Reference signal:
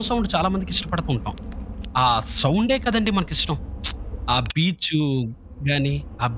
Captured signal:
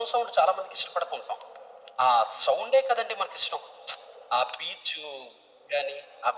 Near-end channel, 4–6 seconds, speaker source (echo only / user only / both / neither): echo only